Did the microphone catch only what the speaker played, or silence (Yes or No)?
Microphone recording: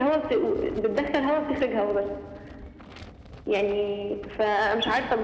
Yes